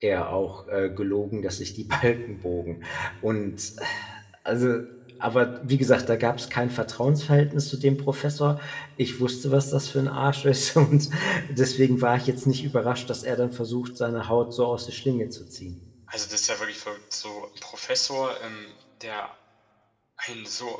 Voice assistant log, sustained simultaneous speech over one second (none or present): none